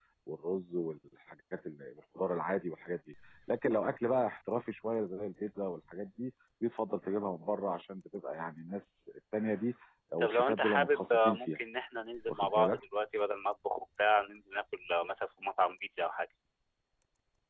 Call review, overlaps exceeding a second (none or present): present